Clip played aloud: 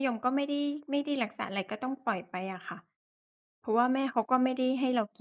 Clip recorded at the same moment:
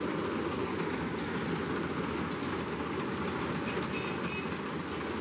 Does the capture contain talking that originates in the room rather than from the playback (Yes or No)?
No